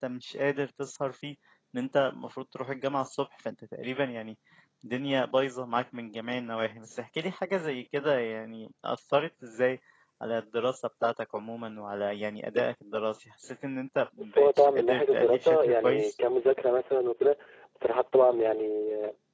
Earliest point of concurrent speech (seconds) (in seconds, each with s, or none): 14.3 s